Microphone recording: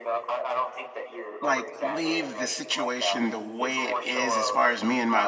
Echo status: present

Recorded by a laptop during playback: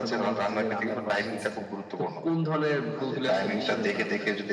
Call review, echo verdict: present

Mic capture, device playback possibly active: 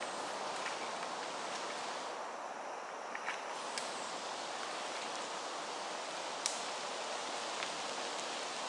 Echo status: none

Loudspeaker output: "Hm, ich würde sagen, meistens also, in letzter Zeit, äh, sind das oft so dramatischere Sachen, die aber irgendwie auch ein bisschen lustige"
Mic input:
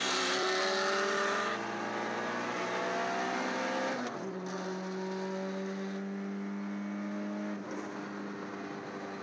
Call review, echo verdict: none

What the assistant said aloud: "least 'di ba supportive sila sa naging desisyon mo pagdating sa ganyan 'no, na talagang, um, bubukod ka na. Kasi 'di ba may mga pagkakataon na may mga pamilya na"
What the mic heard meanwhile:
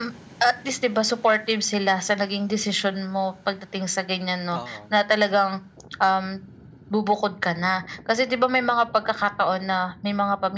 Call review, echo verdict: present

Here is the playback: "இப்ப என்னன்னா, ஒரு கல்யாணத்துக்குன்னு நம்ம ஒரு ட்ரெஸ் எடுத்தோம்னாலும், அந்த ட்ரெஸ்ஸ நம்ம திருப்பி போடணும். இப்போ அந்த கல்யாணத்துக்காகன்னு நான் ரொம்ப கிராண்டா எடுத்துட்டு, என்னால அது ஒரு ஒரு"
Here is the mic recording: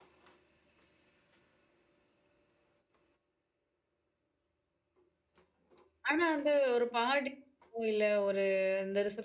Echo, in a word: none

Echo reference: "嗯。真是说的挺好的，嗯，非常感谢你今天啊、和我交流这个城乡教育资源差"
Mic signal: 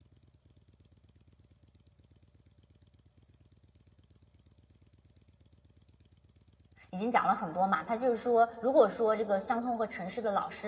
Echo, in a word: none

